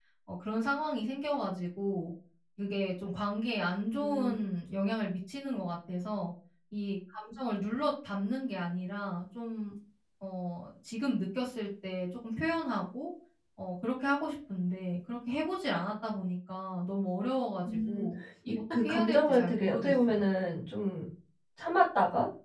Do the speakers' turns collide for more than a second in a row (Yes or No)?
Yes